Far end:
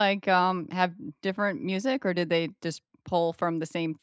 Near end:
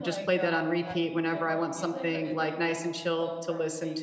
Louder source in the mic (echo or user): user